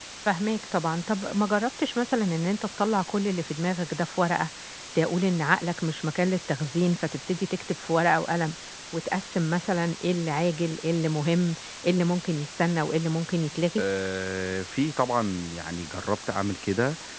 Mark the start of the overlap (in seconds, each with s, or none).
none